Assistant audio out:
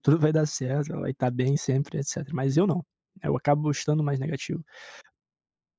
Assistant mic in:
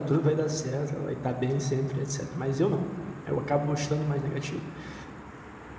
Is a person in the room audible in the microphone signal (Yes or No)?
No